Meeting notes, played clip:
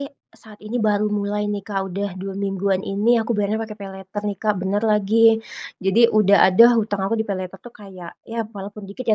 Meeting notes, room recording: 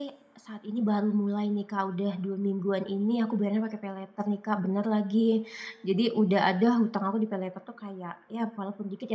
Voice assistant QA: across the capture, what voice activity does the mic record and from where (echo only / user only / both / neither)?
echo only